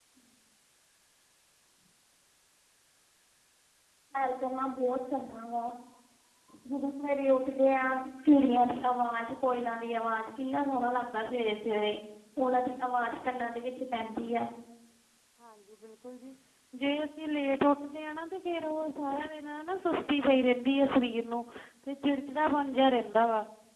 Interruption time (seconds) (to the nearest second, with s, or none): none